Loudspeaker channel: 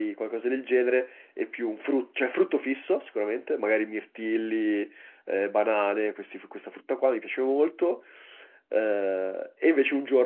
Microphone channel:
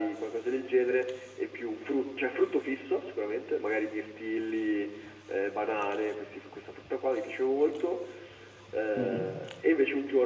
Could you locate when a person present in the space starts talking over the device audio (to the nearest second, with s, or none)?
9 s